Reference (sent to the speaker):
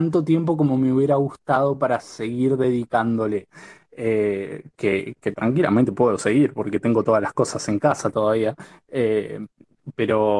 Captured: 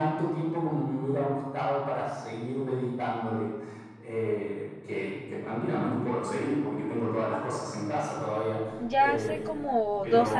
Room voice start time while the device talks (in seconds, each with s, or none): 8.8 s